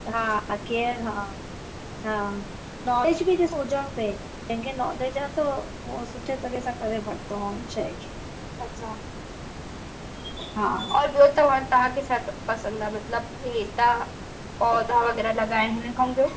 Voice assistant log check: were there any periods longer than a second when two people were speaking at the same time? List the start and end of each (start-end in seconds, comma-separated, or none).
none